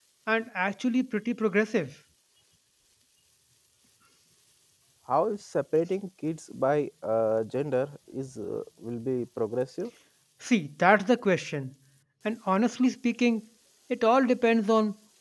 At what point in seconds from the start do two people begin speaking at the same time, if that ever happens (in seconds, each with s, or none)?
none